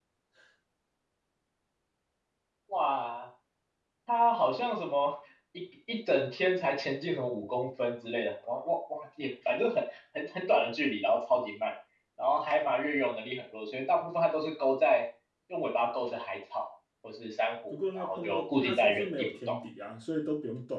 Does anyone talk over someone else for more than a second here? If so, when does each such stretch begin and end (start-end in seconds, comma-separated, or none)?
17.7-19.6